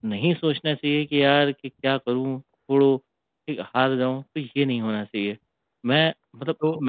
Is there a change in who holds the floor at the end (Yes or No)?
Yes